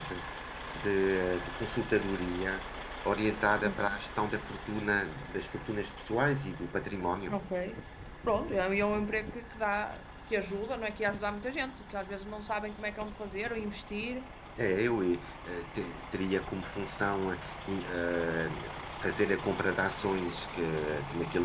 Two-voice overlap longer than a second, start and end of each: none

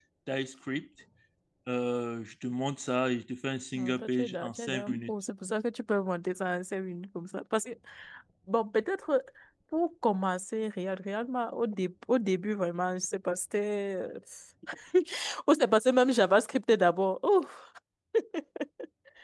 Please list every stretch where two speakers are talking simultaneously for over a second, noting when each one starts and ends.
3.8-5.1

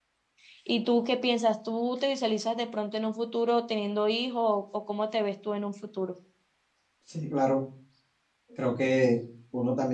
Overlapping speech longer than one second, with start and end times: none

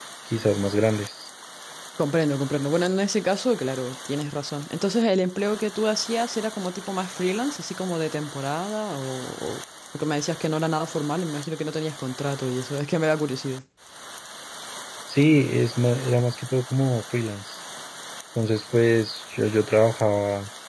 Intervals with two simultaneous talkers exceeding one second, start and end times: none

